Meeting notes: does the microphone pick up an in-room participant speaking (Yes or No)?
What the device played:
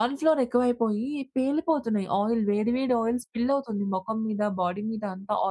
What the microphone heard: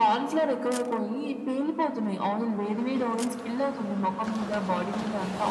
No